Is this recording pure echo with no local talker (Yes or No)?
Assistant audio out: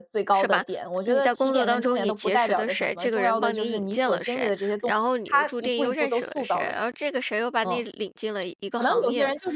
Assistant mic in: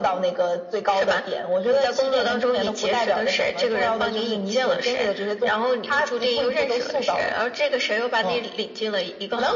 Yes